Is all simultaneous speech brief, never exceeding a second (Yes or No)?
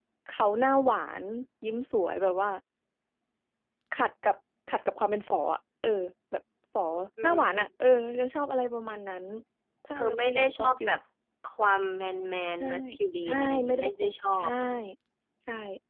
No